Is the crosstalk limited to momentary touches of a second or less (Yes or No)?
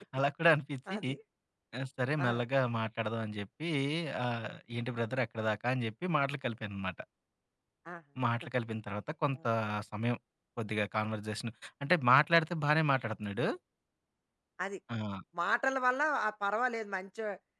Yes